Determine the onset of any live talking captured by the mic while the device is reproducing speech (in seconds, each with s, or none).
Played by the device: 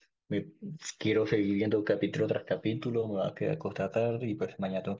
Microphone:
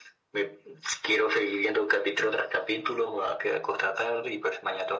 none